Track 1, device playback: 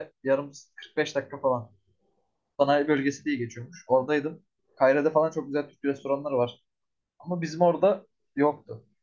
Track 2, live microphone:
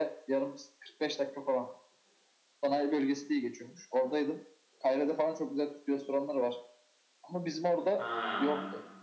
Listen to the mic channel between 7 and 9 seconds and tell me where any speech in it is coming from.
both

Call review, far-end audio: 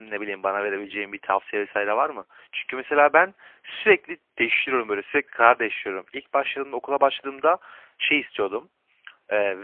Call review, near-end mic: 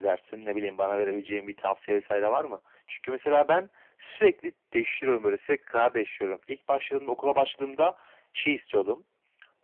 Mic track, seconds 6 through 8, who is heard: echo only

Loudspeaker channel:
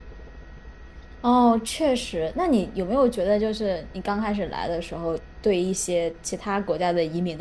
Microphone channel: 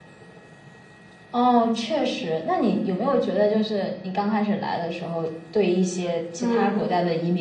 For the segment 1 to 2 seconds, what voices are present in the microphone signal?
echo only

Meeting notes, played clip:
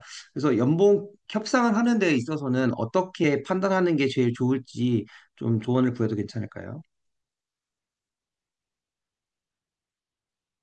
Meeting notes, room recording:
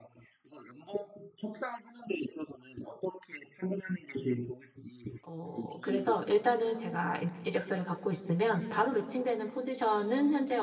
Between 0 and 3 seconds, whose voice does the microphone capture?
echo only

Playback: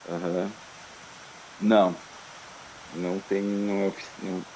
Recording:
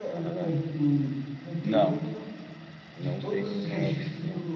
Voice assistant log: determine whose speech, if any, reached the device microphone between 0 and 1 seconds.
both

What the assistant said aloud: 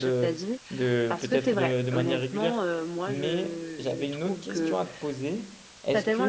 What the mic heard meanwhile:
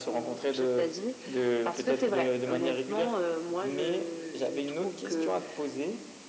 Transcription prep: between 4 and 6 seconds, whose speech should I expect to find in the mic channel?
echo only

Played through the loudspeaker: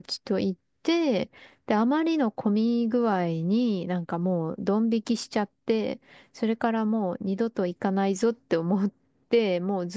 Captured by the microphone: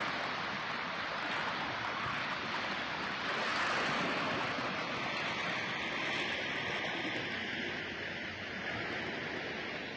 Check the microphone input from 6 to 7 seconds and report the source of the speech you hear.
neither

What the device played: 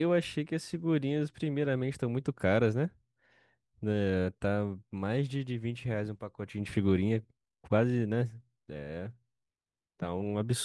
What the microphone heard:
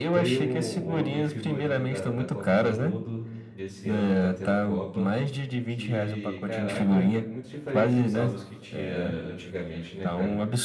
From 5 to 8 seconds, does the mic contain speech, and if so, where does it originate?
both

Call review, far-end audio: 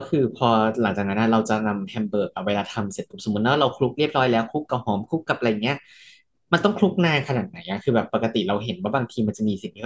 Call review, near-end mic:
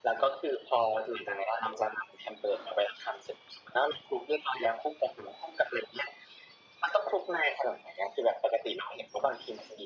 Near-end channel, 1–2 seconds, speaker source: echo only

